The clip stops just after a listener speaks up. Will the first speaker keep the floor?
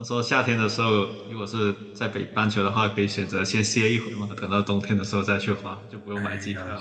No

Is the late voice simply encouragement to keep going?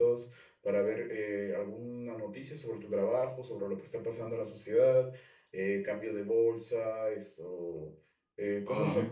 Yes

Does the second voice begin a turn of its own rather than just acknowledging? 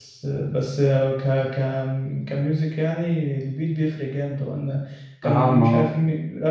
No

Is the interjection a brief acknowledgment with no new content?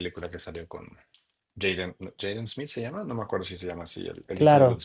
No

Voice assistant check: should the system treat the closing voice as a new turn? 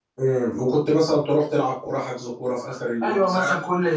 Yes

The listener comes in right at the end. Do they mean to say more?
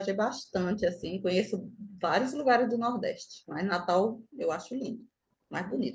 Yes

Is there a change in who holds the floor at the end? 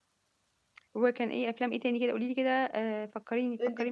Yes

